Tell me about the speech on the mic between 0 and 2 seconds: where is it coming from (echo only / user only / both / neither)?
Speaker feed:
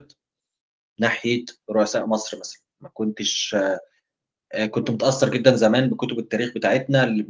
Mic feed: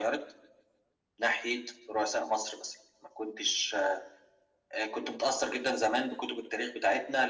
echo only